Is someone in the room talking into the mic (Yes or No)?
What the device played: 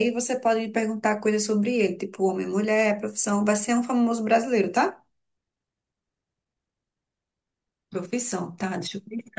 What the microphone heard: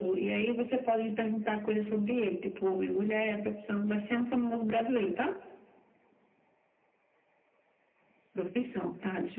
No